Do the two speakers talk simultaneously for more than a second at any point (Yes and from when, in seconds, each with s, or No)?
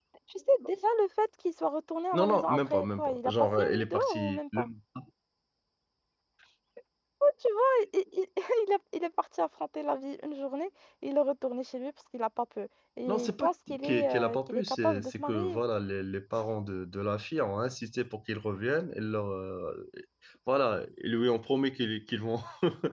Yes, from 2.1 s